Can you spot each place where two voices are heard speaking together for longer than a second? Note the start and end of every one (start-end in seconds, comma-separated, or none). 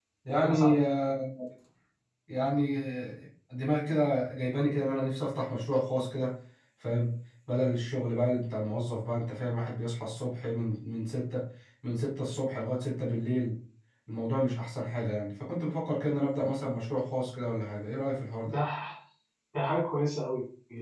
none